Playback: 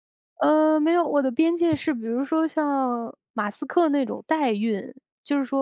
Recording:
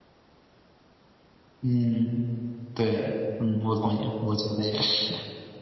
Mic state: user only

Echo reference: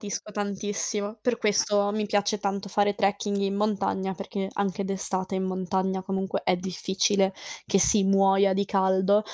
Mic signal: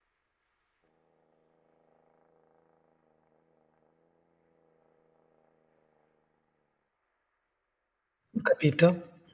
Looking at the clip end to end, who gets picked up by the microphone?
user only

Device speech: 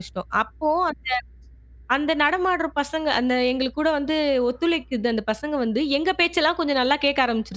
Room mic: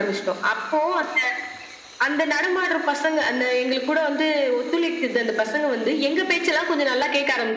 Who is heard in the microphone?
echo only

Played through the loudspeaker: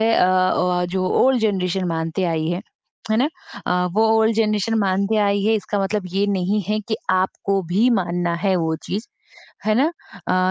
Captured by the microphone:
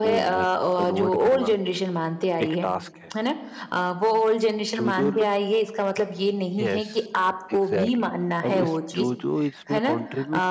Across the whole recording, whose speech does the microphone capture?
both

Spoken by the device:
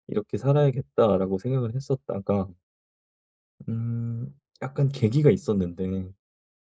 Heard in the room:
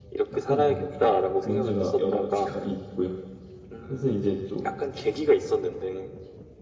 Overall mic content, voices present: both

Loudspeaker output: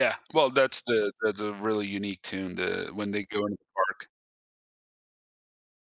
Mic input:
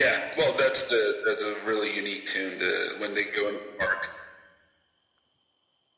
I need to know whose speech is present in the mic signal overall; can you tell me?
echo only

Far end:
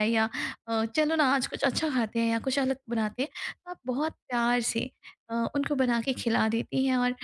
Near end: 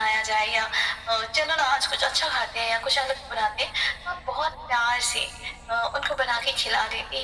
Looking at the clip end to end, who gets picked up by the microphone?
echo only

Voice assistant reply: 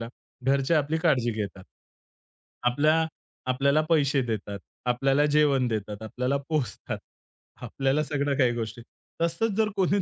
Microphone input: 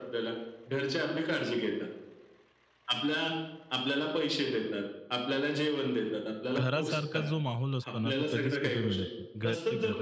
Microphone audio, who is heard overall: both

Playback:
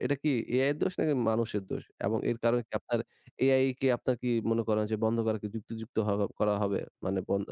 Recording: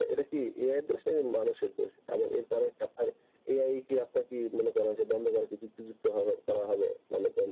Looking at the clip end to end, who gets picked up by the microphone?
echo only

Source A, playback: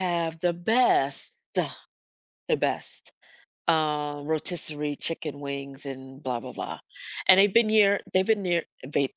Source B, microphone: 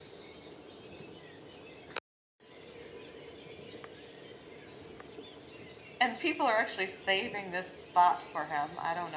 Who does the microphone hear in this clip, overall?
user only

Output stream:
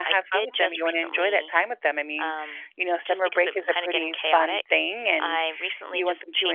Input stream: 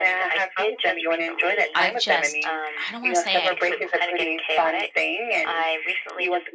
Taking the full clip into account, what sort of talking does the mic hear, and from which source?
both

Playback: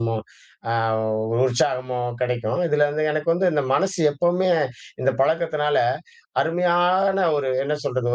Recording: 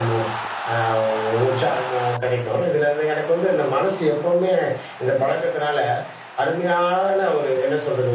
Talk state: echo only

